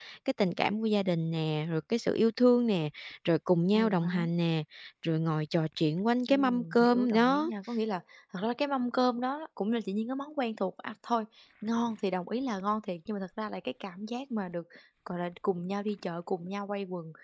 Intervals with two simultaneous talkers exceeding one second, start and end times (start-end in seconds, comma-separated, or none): 6.3-7.5